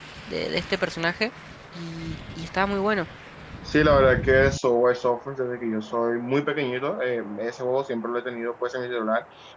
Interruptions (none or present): none